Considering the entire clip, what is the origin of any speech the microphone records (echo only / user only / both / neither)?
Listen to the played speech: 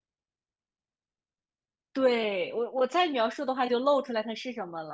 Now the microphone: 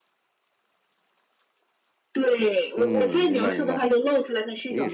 both